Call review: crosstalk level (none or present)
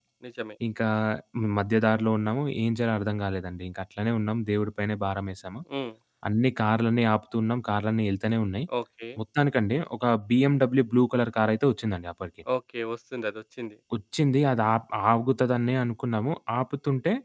none